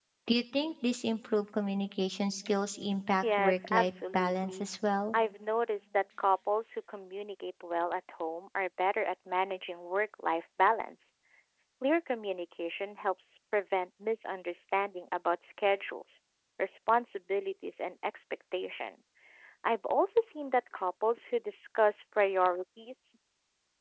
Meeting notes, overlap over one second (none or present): present